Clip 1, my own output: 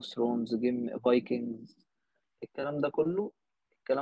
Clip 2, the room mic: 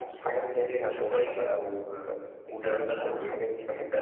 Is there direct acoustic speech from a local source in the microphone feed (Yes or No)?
Yes